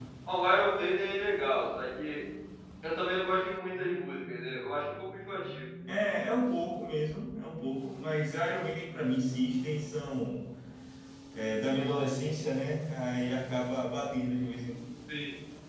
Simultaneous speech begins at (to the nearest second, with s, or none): none